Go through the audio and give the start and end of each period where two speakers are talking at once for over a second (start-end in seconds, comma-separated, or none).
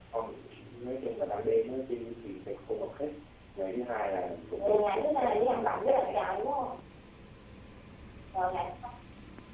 4.6-6.2